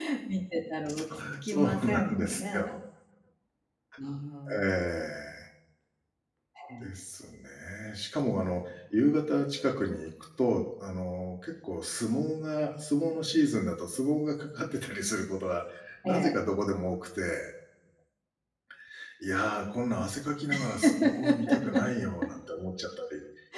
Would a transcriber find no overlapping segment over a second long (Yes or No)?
No